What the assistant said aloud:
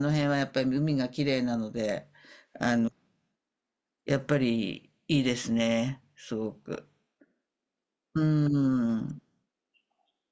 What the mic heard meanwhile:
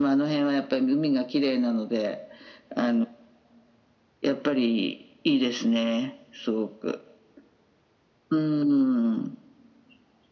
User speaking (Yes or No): No